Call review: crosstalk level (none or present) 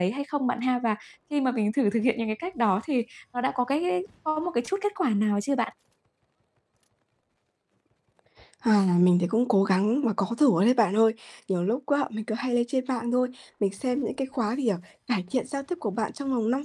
none